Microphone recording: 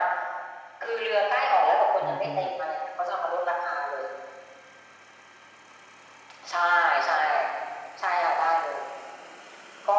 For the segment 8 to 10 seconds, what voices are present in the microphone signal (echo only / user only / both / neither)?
echo only